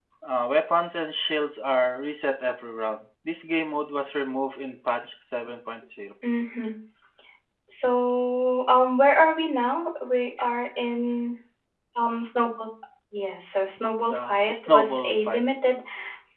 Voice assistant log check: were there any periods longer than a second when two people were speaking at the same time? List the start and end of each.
14.1-15.4

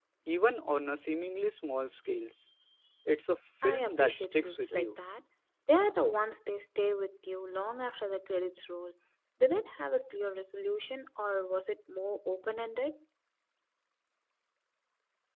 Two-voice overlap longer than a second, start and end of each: 3.6-5.0

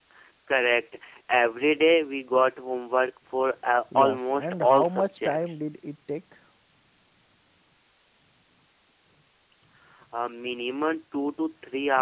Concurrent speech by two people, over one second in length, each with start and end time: 4.0-5.5

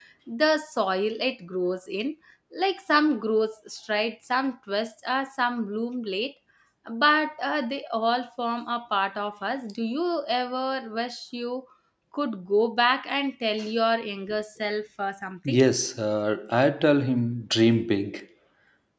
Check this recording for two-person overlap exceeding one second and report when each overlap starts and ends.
none

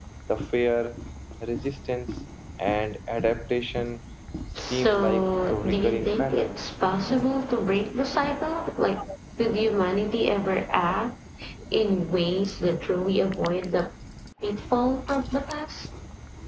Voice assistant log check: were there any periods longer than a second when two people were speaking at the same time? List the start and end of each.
4.7-6.5

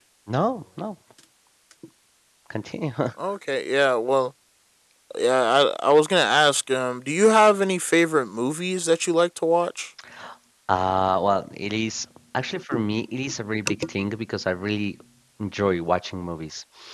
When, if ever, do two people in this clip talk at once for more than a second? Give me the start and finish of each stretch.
none

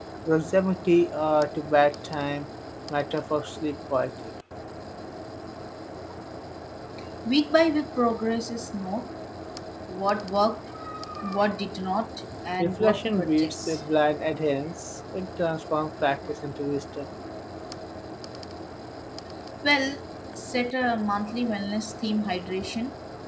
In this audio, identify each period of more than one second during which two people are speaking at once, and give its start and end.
12.6-13.8

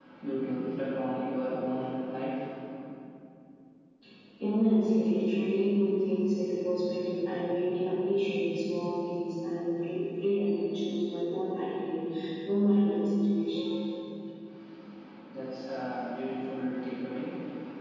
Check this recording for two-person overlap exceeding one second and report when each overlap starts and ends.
none

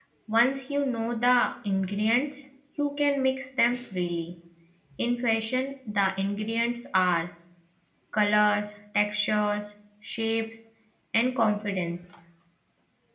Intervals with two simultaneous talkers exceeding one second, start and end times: none

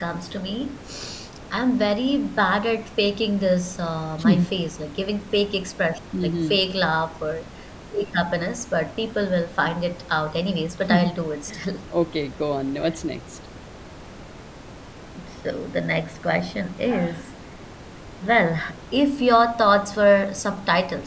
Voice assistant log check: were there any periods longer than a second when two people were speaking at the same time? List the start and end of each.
none

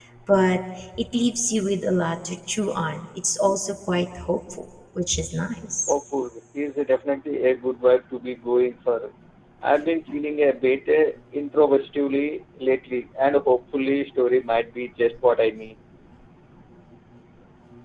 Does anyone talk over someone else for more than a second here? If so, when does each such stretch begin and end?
none

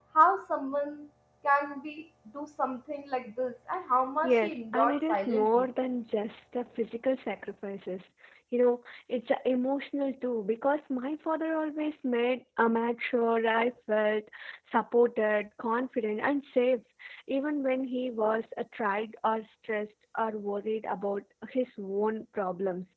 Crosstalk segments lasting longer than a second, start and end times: 4.2-5.7

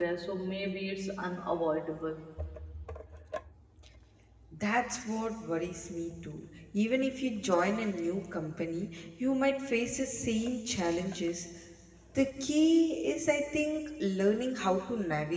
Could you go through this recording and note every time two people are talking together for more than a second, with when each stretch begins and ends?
none

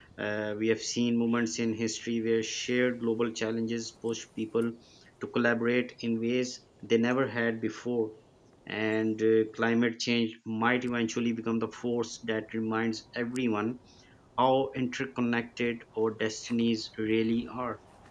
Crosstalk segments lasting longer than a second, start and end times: none

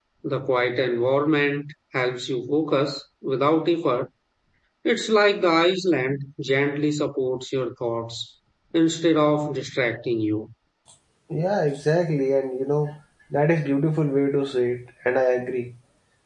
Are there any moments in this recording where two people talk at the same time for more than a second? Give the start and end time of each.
none

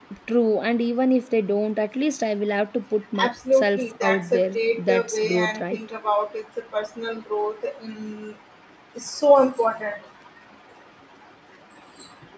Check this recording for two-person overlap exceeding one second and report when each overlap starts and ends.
3.2-5.8

